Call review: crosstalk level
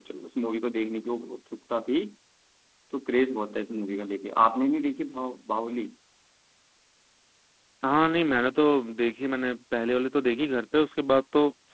none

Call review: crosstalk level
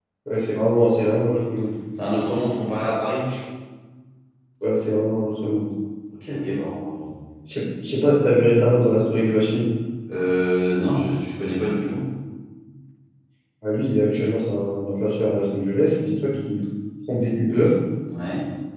none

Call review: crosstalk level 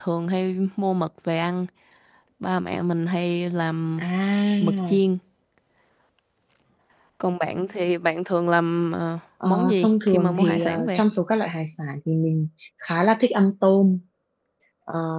present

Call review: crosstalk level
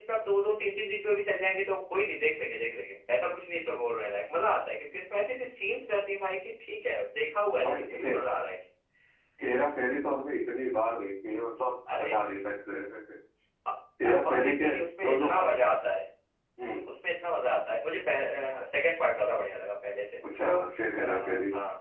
present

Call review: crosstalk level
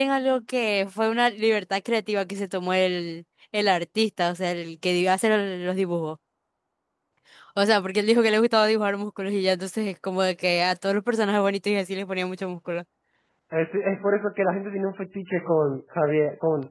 none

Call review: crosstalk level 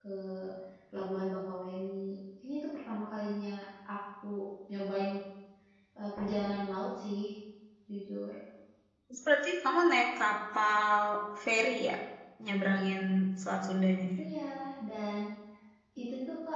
none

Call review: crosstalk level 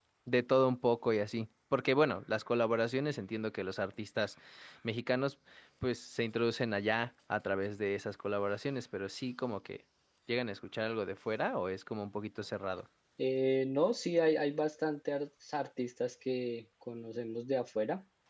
none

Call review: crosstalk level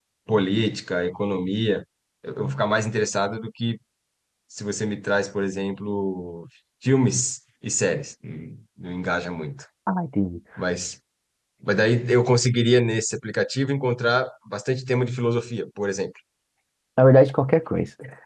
none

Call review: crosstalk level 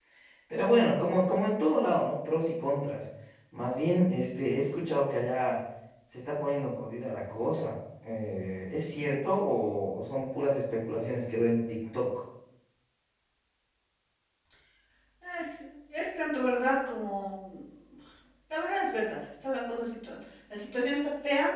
none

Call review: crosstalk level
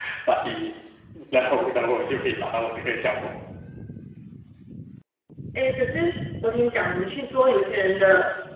none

